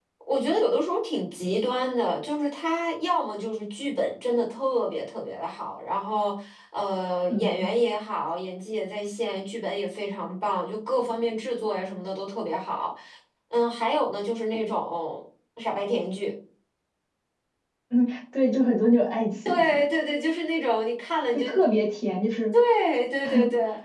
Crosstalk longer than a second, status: none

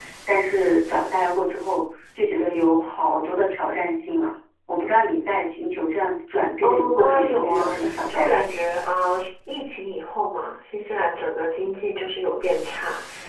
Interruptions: present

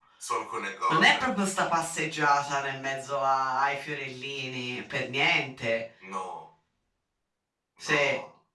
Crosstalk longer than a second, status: none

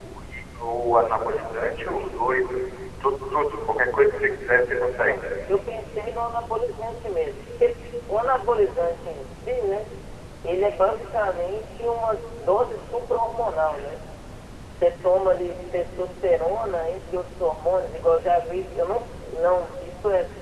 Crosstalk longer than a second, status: none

